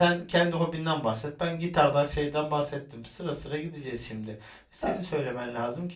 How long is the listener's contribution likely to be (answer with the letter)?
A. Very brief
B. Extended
A